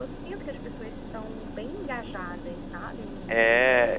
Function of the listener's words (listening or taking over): taking over